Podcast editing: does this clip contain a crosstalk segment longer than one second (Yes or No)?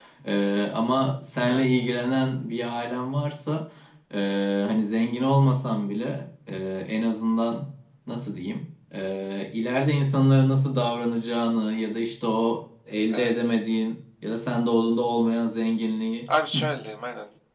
No